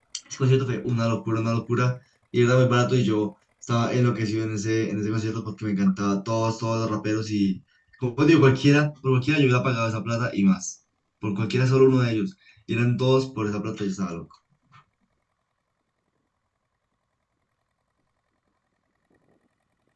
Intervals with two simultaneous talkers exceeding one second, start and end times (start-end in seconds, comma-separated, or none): none